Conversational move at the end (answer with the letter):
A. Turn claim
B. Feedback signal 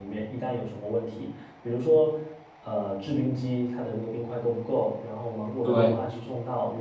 B